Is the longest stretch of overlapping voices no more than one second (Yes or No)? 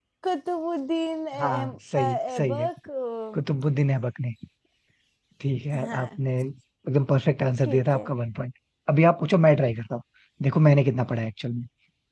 No